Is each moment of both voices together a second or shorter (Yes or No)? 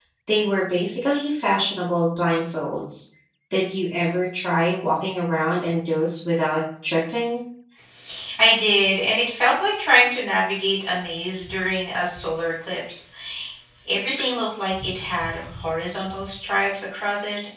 Yes